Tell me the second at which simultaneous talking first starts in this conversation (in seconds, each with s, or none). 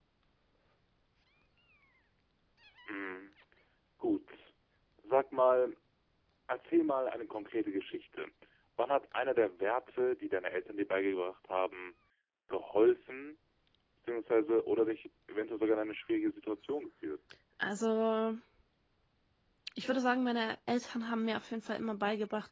none